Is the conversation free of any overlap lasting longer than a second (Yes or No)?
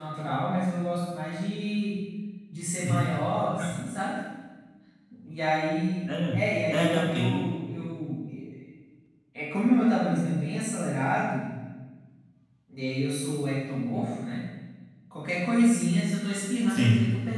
No